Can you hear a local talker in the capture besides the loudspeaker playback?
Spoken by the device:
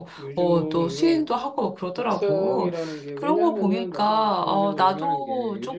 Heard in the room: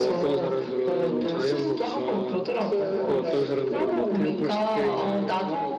Yes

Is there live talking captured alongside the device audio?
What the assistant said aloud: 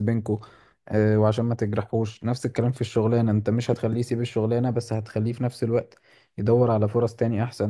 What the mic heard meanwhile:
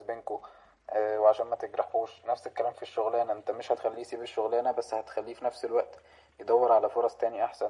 No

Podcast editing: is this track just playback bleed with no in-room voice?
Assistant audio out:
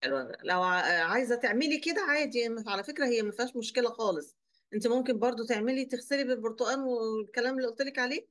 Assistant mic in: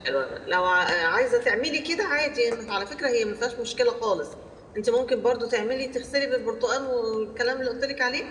Yes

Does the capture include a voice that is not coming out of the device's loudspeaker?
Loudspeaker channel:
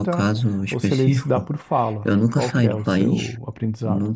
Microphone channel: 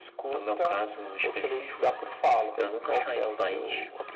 No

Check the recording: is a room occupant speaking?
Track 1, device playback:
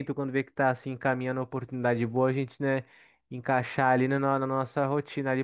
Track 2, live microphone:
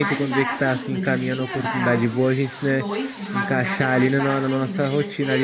Yes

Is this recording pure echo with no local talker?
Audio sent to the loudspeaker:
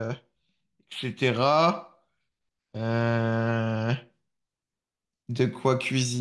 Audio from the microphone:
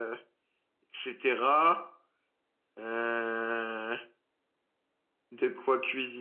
Yes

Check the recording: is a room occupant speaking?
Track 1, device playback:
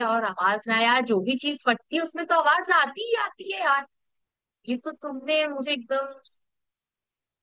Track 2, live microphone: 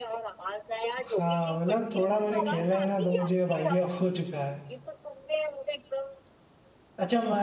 Yes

